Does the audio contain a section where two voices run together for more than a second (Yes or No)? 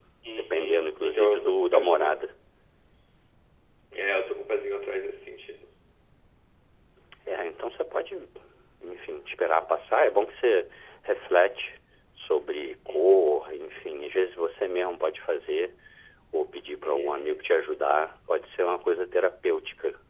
Yes